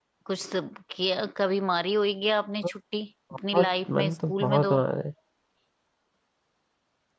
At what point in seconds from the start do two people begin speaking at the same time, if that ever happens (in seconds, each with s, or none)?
3.5 s